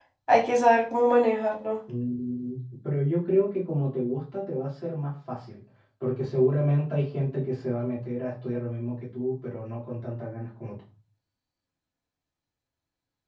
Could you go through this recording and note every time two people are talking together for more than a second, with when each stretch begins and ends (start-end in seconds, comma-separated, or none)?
none